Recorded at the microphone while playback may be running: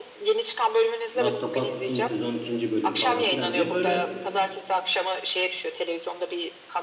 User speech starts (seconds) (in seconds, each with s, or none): 1.2 s